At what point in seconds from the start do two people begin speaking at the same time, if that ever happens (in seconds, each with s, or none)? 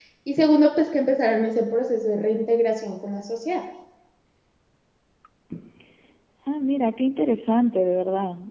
none